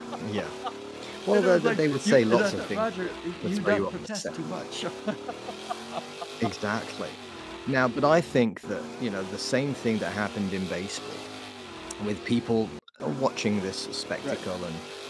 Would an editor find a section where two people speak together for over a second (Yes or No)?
Yes